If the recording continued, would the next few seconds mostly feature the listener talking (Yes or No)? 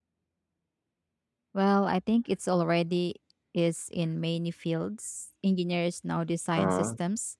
No